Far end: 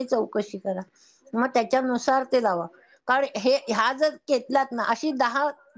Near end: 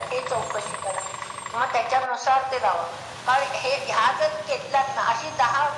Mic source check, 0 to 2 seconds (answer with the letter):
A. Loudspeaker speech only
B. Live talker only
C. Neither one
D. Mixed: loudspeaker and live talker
A